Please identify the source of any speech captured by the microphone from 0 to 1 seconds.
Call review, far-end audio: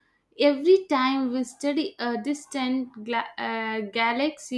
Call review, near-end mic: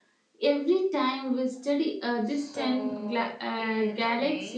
echo only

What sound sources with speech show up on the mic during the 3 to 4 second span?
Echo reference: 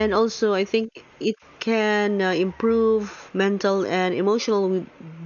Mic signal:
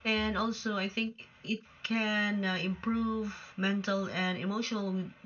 echo only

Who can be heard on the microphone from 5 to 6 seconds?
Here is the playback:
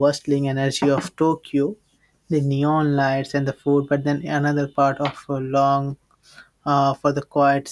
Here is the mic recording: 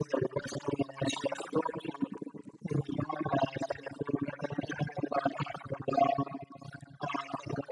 echo only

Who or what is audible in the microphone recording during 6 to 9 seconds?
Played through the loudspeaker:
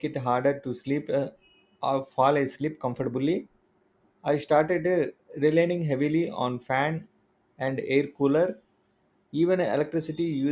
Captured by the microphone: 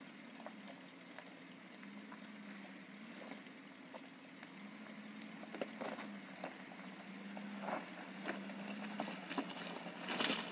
neither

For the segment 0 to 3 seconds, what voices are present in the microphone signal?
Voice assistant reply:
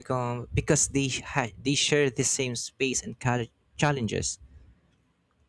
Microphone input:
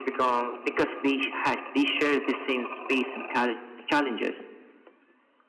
echo only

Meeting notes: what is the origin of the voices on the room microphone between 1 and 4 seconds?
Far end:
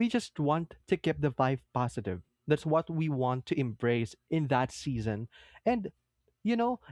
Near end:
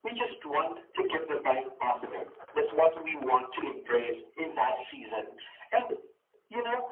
echo only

